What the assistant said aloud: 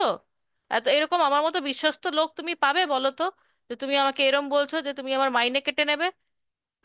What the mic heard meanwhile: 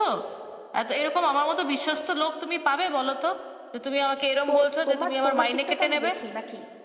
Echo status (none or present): present